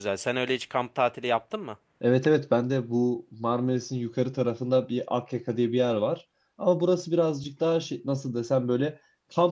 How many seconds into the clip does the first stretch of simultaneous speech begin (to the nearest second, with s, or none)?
none